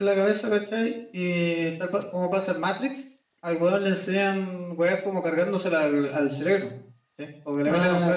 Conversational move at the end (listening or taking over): listening